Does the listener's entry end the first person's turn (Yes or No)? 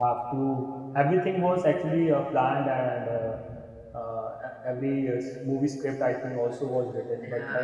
Yes